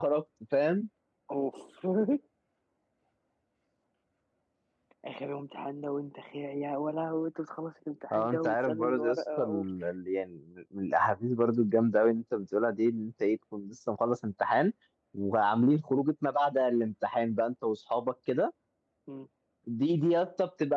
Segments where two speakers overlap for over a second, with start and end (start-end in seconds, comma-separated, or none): 8.1-9.6